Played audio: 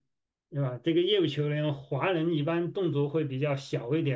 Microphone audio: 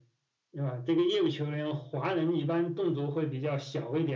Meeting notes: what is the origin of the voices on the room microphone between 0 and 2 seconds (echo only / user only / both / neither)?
echo only